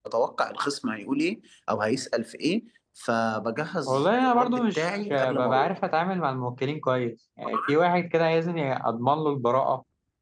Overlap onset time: 3.9 s

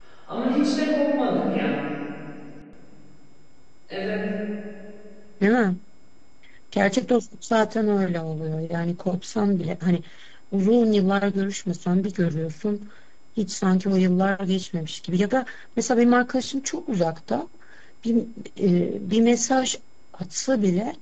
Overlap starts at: none

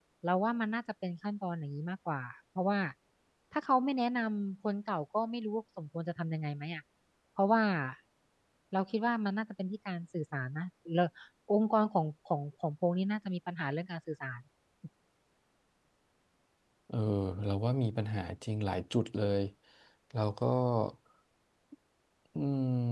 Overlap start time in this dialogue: none

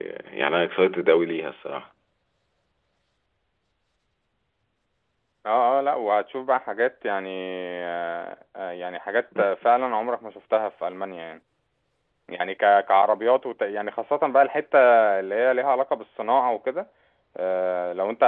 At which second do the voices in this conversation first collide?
none

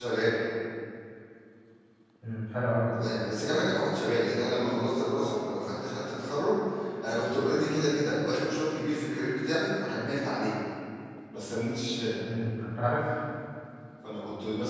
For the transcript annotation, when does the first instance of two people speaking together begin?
none

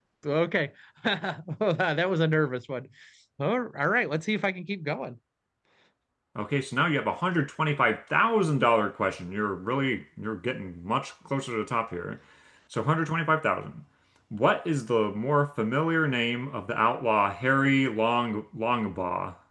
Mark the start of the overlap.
none

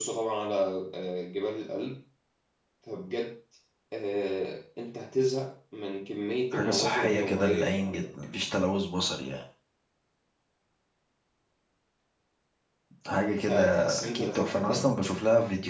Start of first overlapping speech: 6.5 s

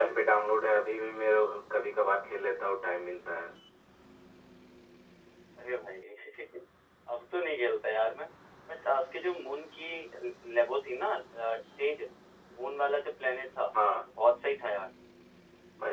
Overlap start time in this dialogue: none

